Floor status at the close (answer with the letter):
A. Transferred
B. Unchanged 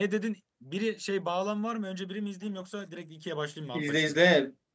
A